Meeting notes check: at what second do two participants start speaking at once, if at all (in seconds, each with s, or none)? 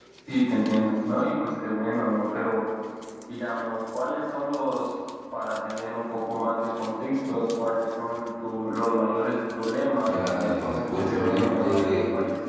10.1 s